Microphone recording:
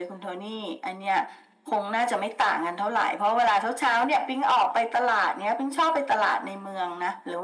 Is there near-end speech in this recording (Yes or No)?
No